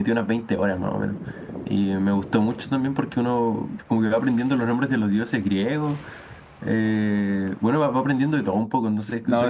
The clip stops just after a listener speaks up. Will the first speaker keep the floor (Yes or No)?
No